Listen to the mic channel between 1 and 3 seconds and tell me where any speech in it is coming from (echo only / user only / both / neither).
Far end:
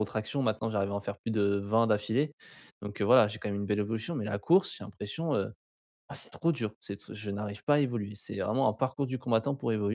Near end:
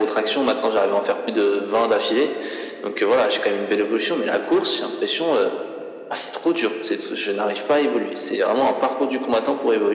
echo only